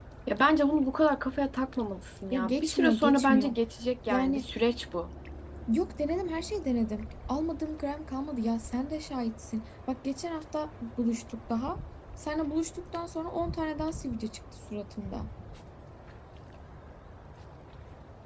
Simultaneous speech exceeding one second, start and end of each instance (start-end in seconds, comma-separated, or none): 2.3-3.5